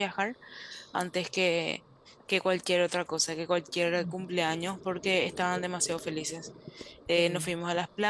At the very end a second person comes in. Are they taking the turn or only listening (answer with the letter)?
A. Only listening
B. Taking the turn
A